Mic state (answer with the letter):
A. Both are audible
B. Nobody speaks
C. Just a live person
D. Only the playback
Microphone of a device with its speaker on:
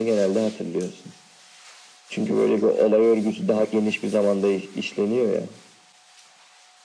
D